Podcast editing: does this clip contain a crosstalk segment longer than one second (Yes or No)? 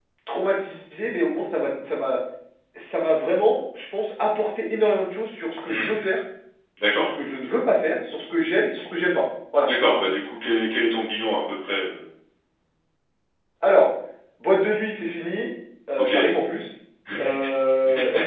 No